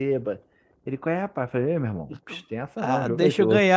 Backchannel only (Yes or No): No